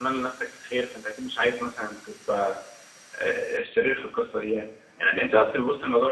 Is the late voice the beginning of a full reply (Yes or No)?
No